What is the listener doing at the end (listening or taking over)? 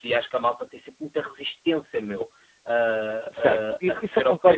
taking over